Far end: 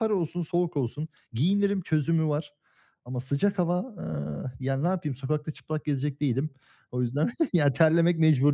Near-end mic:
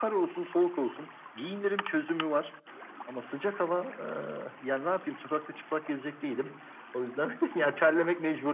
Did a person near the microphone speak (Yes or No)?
No